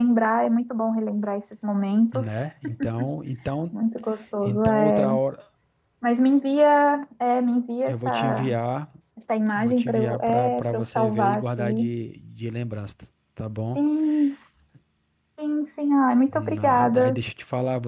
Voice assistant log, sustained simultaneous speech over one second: present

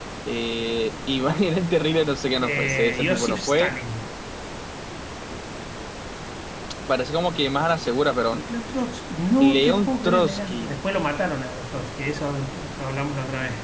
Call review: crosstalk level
present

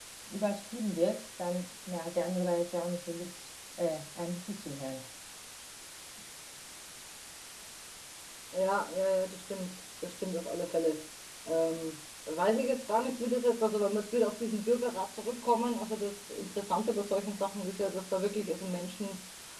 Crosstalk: none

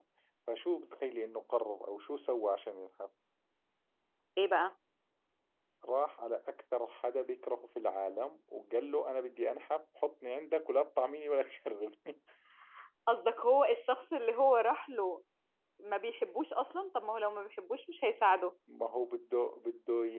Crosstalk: none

